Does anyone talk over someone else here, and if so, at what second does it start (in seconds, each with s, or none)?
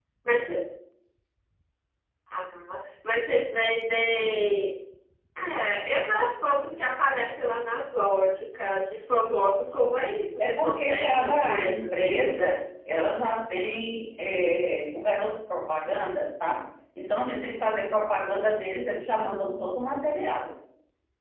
10.4 s